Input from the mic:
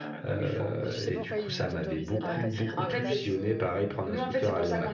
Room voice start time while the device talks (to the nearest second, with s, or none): 1 s